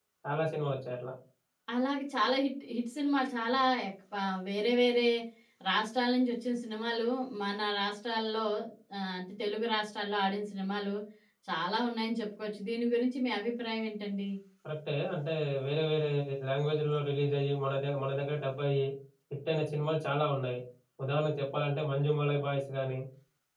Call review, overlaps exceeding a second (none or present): none